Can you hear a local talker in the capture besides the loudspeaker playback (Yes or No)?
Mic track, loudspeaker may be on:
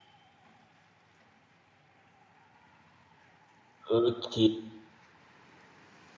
Yes